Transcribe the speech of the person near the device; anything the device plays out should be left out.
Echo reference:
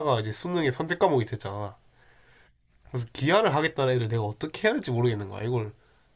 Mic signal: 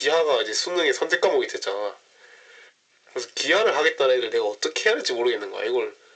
none

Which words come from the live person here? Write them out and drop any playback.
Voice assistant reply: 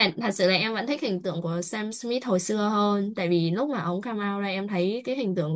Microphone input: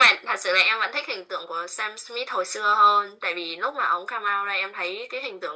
none

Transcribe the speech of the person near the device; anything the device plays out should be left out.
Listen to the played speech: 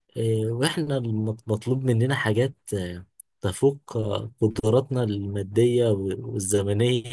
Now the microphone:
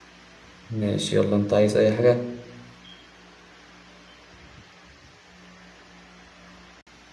ماشي يلا انت عايز اي حاجة

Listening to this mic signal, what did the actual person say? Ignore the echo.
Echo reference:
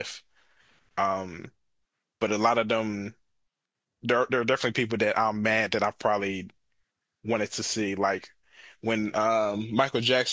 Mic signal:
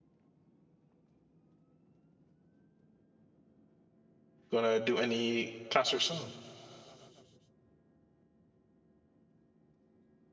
gonna do any concert soon.

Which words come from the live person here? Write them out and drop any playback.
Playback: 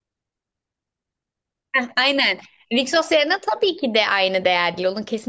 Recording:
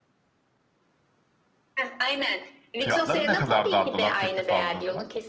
Fiyatları ne kadar dardılar teklif aldığında?

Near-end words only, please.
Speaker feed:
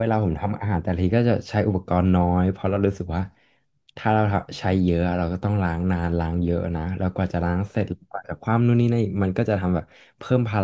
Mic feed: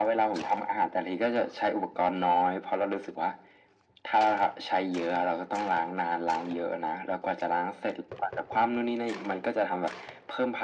none

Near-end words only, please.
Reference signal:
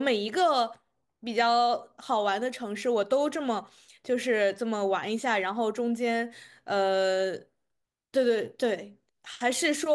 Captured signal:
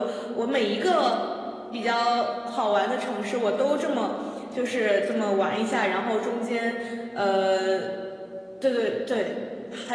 none

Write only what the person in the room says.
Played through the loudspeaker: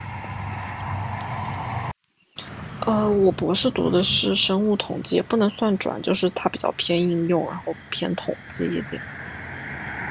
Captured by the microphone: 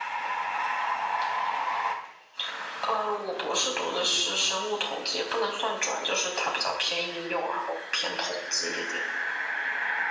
none

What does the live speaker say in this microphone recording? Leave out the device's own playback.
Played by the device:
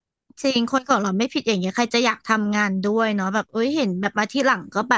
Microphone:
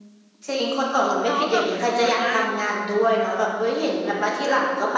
แล้วแบบเหมือนประมาณว่า

